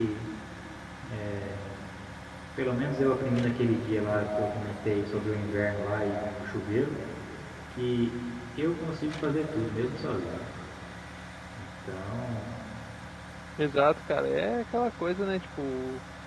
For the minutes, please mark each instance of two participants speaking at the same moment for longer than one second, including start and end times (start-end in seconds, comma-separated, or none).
none